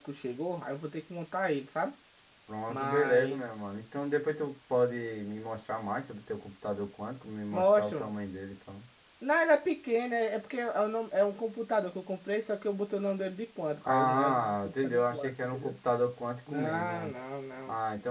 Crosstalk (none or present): present